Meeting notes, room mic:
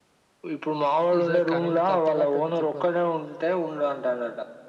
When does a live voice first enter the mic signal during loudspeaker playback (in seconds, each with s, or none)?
1.2 s